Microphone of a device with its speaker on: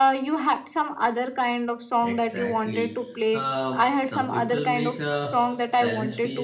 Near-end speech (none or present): present